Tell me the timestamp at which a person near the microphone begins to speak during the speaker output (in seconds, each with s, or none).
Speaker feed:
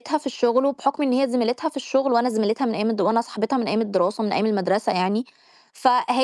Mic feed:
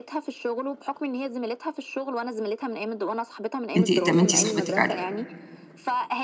3.8 s